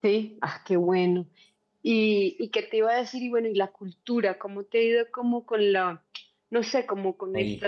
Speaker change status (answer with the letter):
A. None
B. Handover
A